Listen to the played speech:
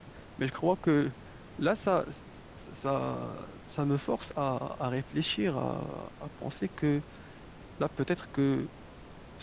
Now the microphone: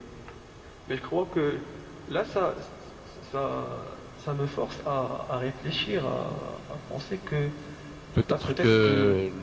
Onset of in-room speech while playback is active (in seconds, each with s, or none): 8.1 s